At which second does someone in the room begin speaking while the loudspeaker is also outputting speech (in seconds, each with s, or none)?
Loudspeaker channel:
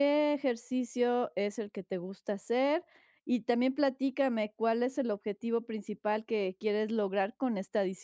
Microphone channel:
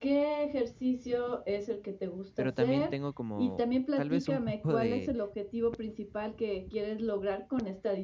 2.4 s